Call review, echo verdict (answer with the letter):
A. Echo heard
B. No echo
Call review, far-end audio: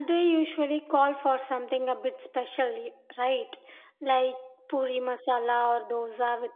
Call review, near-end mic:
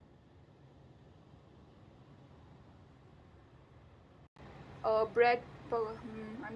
B